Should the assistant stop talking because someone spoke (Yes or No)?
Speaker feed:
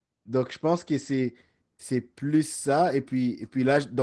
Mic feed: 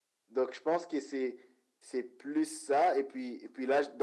No